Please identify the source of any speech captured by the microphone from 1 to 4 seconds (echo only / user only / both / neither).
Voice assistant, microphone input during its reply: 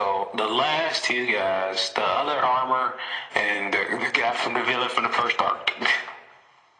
echo only